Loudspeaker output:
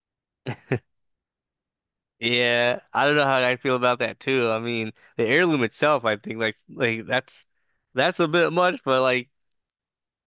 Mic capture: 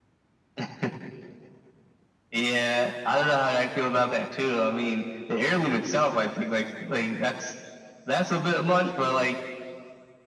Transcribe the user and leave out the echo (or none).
none